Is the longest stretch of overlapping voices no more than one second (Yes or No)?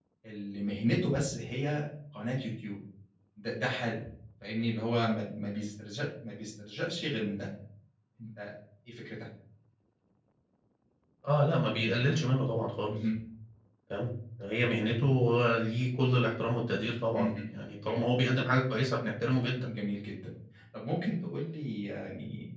Yes